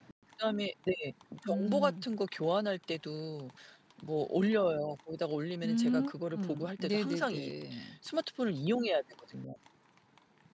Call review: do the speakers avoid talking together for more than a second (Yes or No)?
No